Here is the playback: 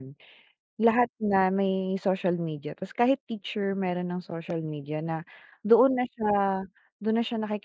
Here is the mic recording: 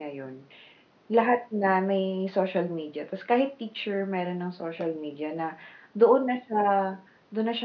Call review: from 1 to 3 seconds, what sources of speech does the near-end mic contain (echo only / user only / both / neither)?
echo only